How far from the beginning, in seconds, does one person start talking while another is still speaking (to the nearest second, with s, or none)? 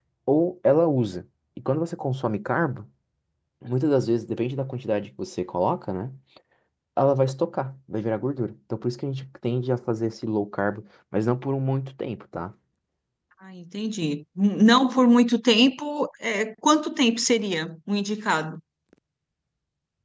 none